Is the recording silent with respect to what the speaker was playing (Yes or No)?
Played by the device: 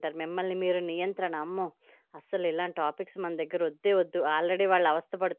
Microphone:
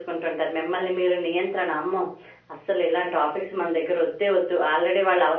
No